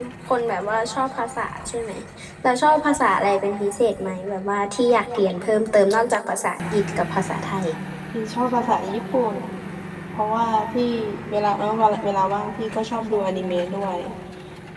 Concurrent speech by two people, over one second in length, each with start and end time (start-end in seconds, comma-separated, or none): none